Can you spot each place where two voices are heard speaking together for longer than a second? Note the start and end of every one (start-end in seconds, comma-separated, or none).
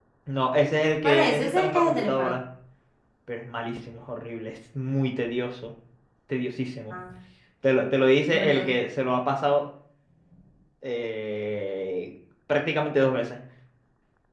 1.0-2.3